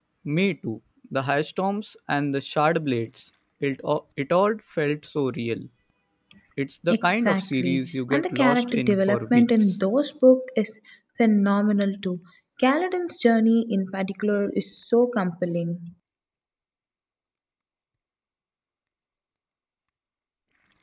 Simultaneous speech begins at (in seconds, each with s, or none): 6.9 s